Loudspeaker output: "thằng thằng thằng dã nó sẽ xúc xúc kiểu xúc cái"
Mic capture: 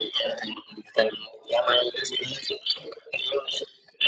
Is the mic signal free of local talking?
Yes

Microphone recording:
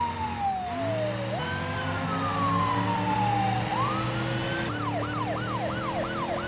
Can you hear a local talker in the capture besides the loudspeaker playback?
No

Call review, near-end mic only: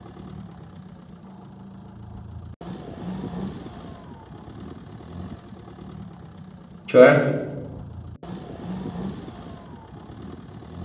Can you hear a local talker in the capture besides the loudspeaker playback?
Yes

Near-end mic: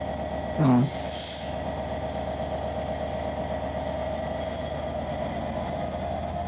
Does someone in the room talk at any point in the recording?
Yes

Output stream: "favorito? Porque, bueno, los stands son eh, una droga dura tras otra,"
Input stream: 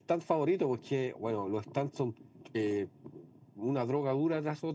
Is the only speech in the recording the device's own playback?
Yes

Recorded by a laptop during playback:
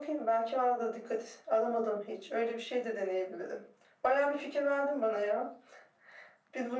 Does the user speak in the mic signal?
No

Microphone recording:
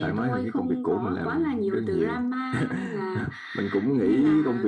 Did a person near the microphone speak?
No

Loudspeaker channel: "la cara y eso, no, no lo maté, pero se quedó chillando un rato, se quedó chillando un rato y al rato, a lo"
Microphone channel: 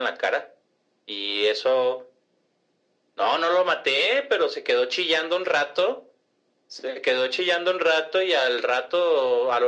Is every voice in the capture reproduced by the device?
Yes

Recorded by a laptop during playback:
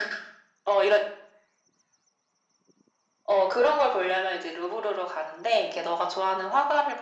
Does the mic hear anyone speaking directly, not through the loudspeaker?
No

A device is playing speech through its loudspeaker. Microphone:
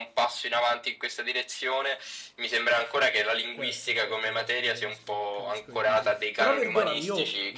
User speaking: Yes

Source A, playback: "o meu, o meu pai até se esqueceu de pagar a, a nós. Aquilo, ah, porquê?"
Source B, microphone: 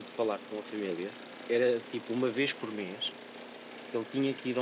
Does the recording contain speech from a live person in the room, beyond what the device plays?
Yes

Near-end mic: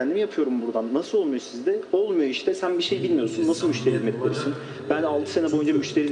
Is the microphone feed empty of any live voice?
No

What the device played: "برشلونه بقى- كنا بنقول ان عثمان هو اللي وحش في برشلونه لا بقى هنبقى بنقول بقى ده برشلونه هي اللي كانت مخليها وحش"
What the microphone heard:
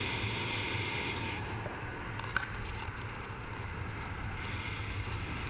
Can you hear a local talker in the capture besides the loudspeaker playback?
No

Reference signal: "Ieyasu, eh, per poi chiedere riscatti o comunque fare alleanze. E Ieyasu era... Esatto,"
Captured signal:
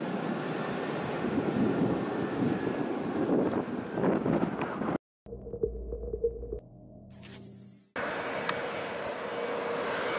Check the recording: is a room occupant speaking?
No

